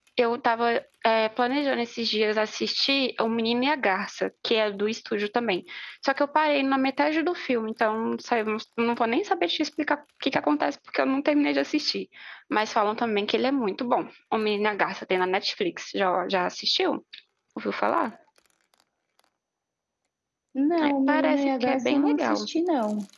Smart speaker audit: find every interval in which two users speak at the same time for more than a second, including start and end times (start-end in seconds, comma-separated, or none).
20.9-22.5